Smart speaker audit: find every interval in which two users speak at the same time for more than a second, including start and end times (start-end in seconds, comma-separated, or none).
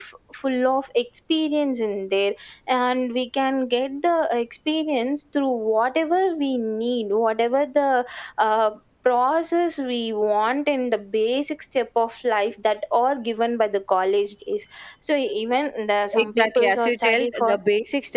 16.1-17.6